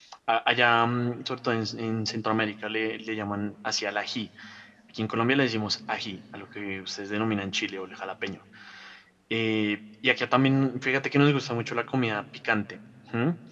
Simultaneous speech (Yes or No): No